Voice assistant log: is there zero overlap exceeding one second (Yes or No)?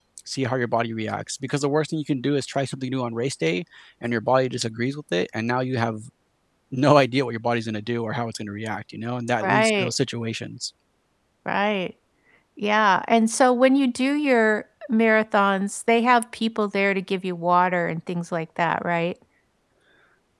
Yes